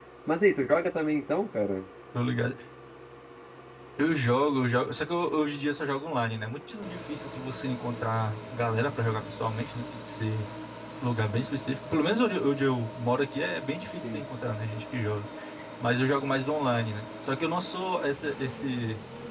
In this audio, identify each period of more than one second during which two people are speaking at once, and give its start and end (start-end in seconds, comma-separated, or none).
none